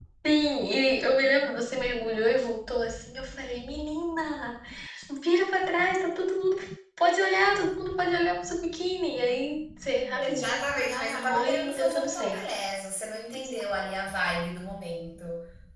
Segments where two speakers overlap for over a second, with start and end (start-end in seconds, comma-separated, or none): 10.2-12.4